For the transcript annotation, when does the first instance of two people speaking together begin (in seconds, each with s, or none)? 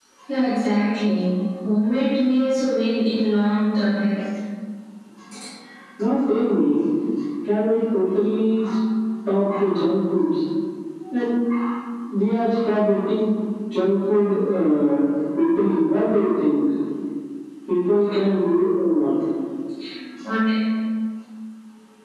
none